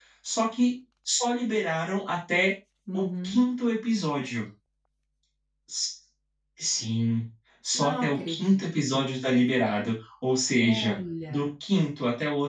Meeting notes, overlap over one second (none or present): present